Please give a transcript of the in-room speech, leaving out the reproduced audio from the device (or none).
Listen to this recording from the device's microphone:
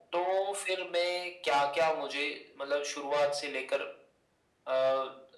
none